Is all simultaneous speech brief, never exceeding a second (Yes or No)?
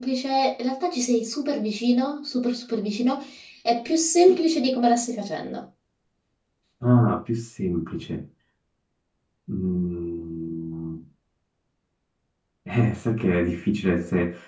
Yes